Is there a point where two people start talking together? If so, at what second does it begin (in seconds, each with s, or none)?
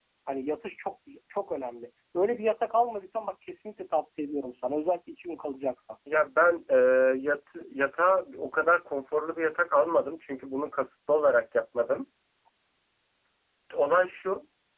none